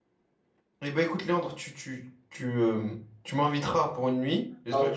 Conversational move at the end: listening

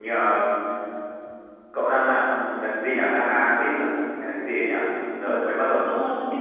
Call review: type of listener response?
taking over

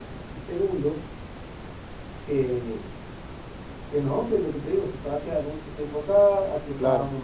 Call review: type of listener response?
listening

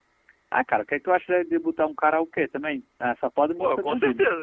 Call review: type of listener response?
taking over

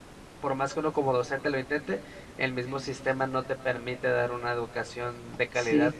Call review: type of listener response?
taking over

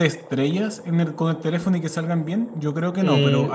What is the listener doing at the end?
taking over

